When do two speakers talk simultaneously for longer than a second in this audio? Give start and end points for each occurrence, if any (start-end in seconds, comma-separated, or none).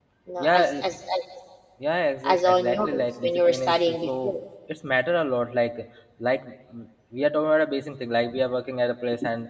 2.2-4.3